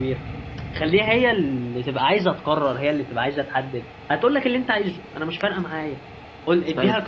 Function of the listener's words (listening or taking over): listening